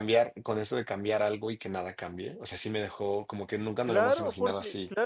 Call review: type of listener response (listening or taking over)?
taking over